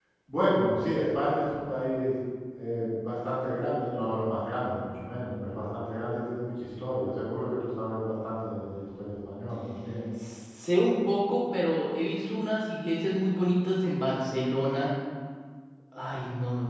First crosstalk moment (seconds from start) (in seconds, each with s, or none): none